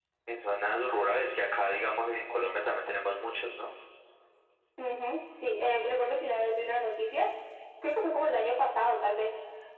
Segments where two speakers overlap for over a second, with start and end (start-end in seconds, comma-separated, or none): none